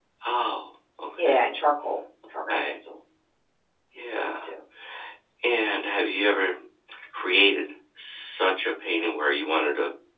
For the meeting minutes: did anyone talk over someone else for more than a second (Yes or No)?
No